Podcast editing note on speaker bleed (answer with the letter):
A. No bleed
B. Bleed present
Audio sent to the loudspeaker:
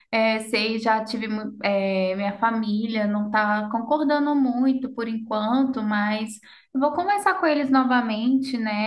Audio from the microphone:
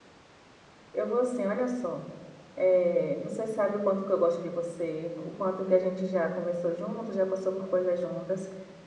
A